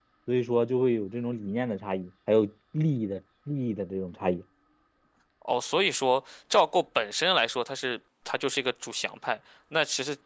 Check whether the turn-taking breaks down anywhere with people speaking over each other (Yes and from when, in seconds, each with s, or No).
No